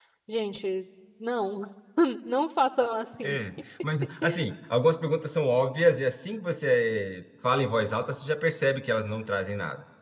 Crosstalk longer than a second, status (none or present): none